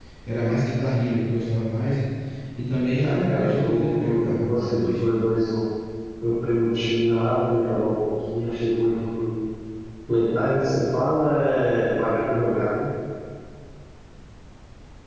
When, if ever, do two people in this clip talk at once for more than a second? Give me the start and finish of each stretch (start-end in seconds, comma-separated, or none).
3.0-4.9